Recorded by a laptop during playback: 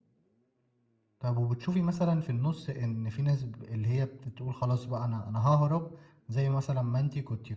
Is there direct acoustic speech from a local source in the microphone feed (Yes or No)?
Yes